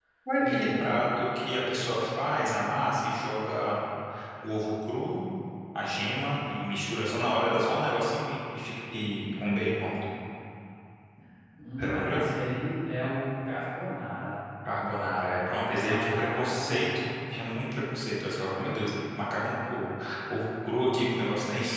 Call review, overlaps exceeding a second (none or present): present